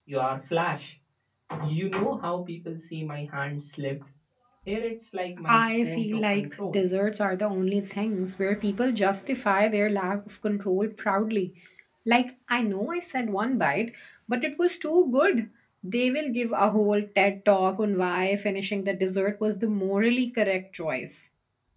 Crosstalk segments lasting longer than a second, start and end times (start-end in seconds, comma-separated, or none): 5.5-6.8